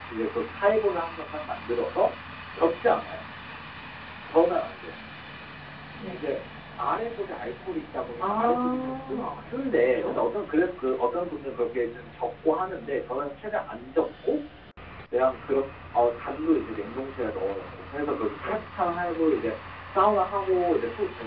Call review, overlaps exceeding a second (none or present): present